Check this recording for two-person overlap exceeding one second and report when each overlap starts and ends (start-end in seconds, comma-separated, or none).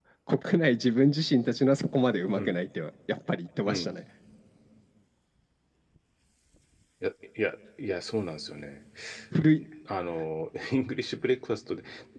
none